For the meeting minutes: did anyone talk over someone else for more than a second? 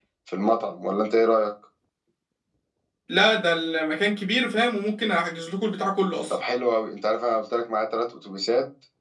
No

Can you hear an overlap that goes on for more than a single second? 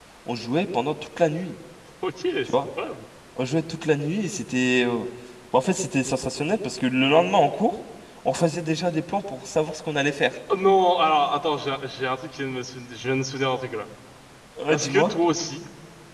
No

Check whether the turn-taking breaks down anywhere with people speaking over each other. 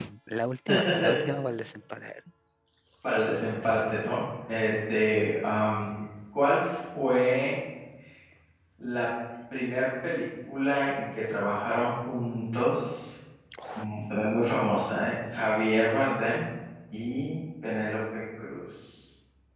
No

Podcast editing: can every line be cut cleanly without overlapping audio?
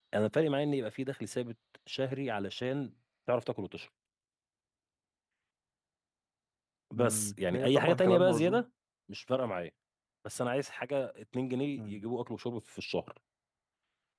No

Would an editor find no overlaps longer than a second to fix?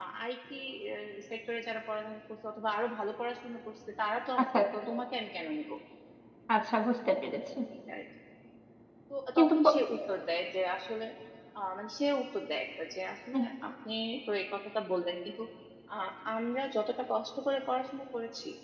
Yes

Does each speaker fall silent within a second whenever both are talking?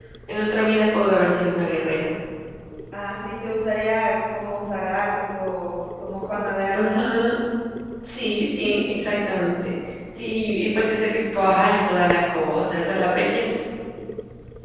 Yes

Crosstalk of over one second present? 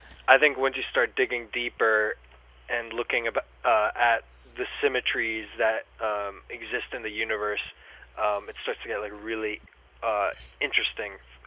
No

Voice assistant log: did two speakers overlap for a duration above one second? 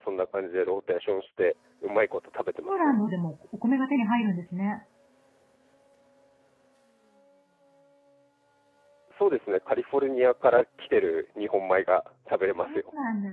No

